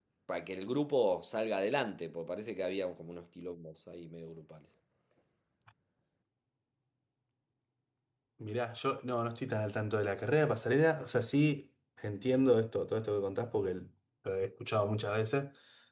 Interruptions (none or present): none